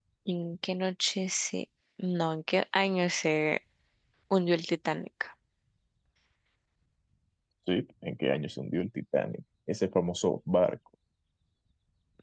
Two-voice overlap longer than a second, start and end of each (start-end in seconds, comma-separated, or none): none